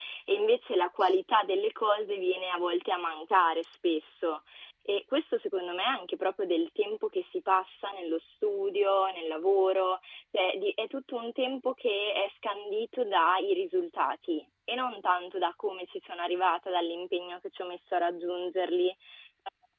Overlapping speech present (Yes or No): No